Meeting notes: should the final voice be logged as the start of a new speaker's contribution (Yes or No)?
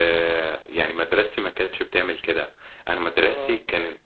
No